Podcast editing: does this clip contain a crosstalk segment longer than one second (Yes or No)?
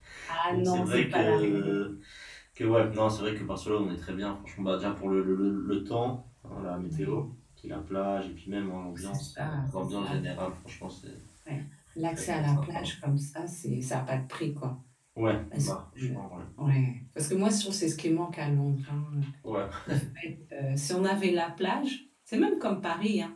Yes